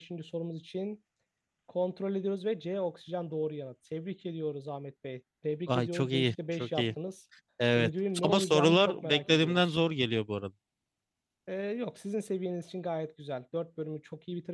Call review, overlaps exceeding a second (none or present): present